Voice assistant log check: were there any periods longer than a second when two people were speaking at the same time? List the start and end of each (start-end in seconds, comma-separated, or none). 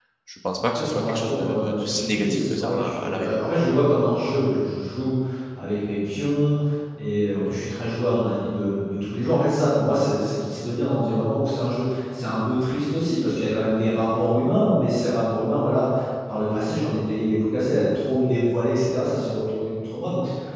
0.6-3.4